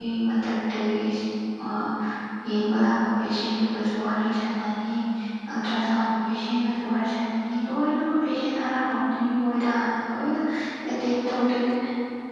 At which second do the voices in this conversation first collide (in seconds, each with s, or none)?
none